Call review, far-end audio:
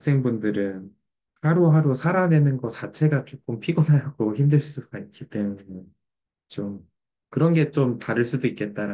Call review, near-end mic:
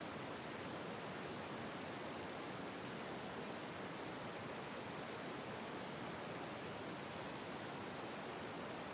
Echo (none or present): none